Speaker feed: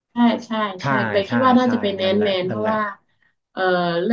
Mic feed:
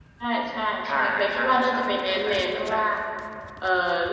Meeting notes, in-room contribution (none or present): none